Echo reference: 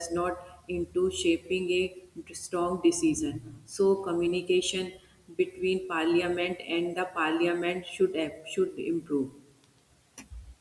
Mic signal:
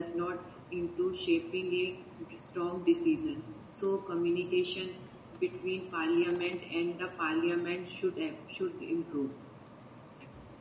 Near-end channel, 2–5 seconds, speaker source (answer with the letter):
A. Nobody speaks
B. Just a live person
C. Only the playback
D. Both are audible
C